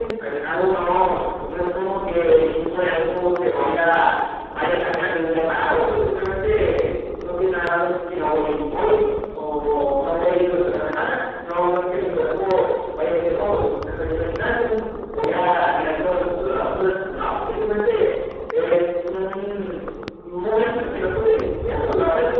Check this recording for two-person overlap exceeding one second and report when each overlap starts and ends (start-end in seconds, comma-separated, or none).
none